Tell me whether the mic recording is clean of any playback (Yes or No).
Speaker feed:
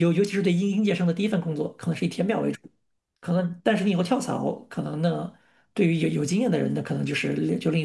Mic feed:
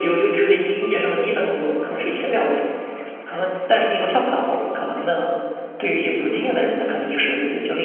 No